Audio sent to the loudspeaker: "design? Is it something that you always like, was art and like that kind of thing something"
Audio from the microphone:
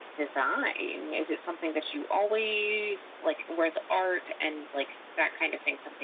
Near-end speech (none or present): none